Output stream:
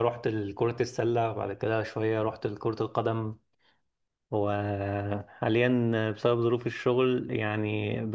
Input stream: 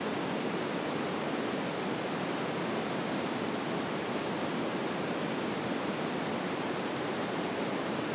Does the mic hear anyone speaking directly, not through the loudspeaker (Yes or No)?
No